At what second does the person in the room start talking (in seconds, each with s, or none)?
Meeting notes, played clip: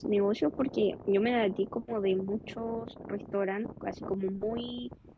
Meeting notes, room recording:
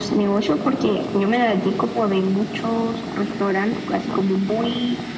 none